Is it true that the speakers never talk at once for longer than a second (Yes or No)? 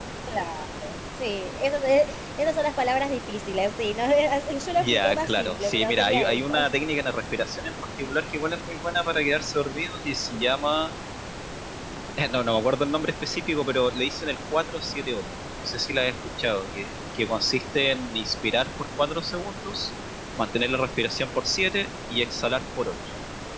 No